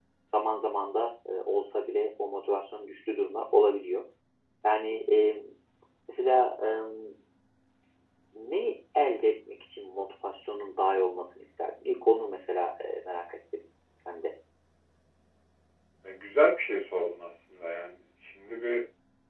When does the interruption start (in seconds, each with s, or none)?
none